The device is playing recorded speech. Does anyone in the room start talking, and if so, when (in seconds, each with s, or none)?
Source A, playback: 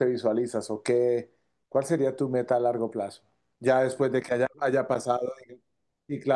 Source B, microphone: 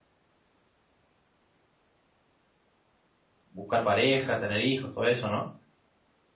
3.5 s